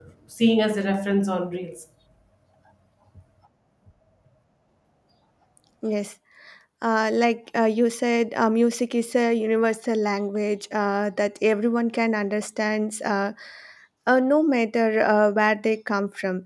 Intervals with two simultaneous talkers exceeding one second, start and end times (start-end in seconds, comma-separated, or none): none